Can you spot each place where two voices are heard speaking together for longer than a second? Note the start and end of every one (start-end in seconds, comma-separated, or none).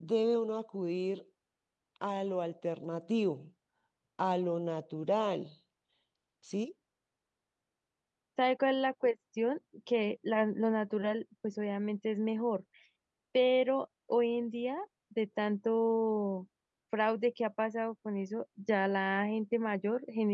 none